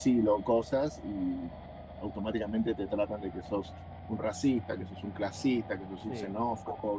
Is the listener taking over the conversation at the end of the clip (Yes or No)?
No